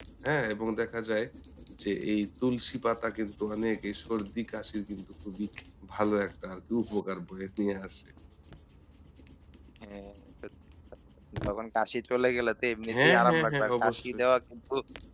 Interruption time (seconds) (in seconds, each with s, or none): 12.9 s